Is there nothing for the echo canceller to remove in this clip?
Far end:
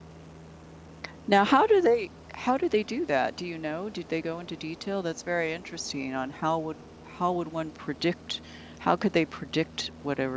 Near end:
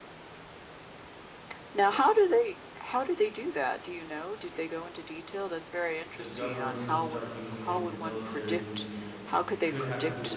No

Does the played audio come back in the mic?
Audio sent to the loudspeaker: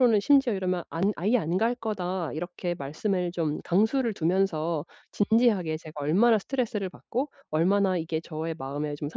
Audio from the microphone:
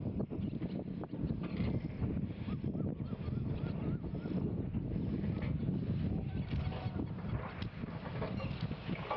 No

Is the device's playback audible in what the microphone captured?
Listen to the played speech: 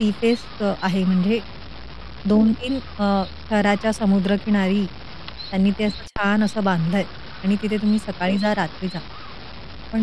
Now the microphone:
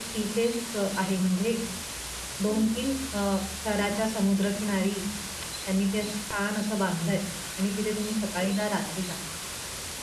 Yes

